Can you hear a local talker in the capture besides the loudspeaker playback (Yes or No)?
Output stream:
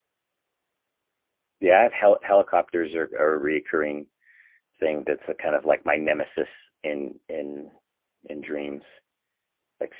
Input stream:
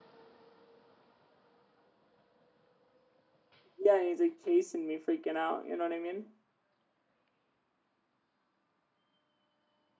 Yes